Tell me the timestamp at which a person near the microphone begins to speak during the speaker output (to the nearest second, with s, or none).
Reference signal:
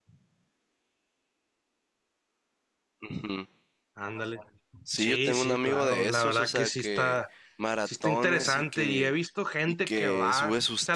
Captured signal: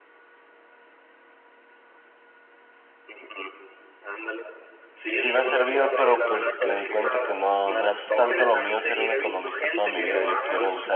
5 s